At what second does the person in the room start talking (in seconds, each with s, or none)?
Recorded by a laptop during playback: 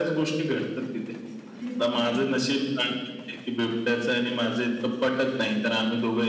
1.5 s